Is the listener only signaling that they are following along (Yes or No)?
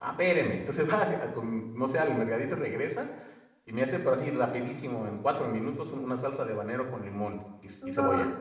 Yes